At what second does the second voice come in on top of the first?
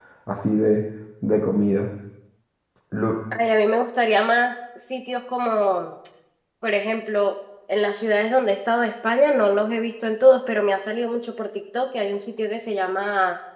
none

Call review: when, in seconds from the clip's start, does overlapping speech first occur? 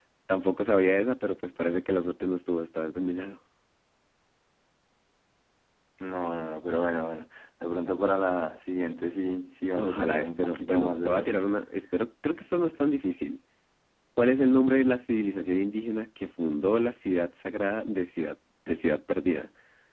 9.8 s

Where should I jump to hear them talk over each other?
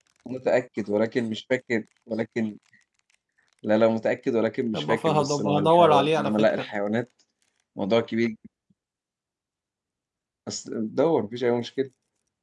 4.7 s

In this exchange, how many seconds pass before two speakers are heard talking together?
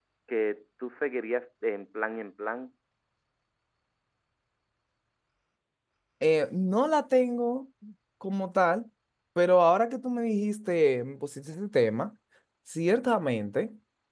none

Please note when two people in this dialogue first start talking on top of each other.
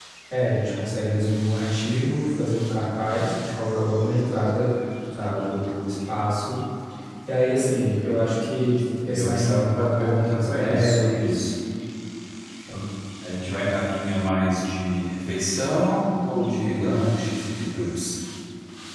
9.1 s

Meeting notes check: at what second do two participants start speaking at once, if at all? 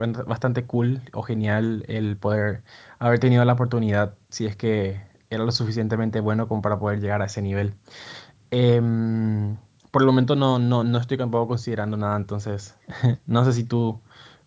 none

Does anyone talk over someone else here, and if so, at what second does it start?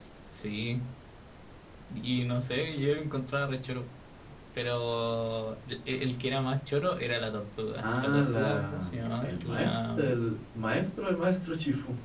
7.8 s

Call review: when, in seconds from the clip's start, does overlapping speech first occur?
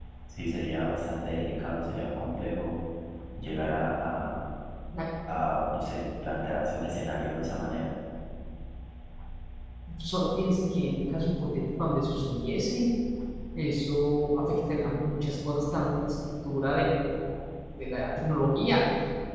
none

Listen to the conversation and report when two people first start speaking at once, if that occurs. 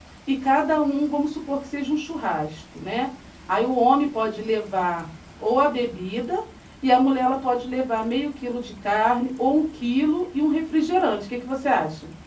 none

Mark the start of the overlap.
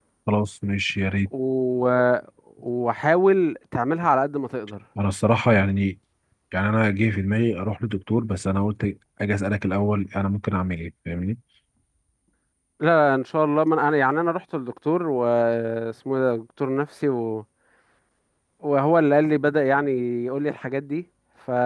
none

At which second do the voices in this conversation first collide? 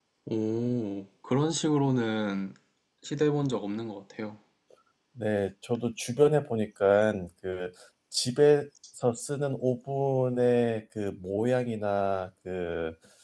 none

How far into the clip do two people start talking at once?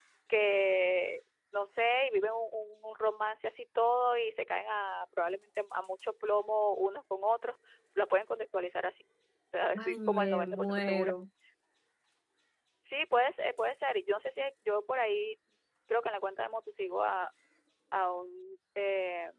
9.8 s

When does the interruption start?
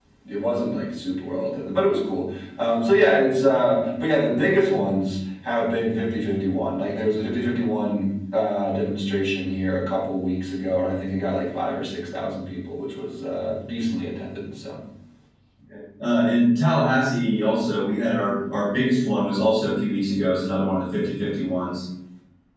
none

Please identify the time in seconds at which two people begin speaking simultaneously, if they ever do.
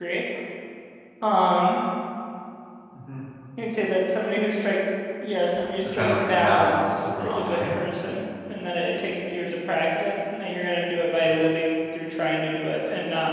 6.0 s

